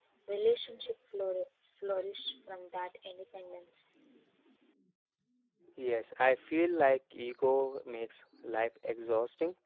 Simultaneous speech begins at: none

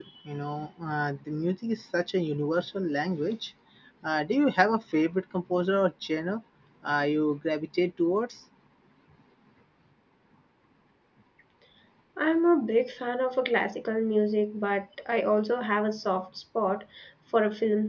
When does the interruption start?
none

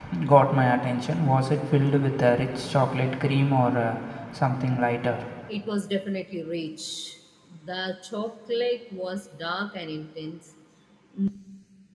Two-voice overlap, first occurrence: none

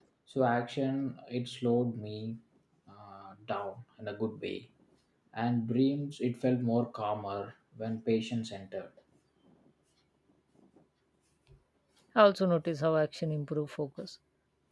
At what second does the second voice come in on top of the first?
none

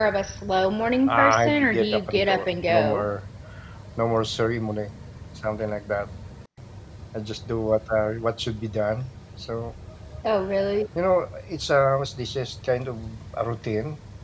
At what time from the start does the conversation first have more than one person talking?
1.1 s

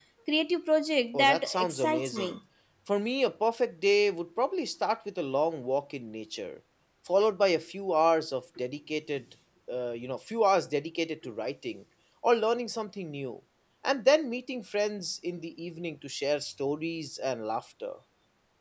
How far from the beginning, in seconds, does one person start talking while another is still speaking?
1.1 s

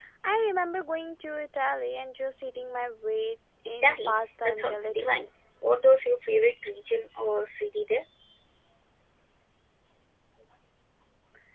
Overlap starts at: 3.6 s

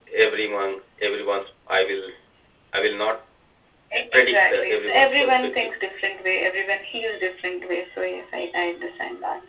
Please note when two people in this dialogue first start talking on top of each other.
4.2 s

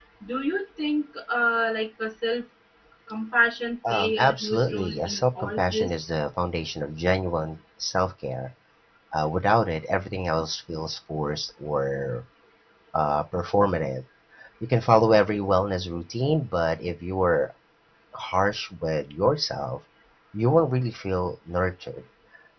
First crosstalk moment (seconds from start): 3.9 s

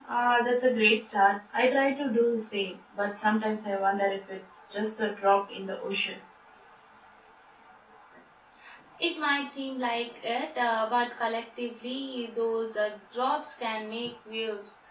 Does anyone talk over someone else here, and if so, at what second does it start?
none

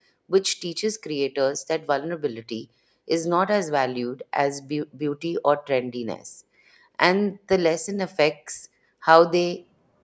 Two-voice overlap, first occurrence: none

